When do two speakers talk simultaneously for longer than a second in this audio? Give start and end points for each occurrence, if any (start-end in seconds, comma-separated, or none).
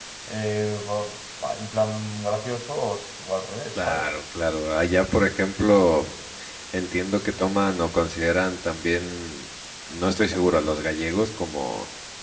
none